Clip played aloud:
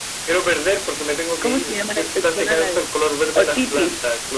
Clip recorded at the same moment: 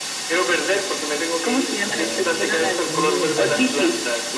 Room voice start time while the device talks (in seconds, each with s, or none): 1.8 s